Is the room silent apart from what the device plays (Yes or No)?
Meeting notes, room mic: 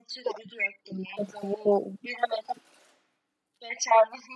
Yes